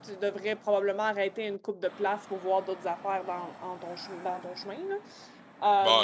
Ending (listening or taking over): taking over